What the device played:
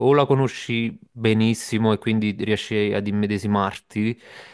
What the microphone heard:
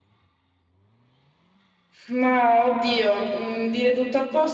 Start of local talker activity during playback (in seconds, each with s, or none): 2.1 s